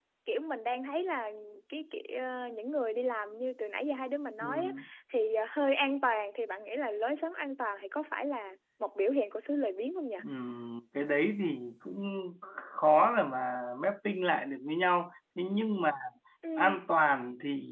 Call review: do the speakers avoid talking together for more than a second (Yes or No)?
Yes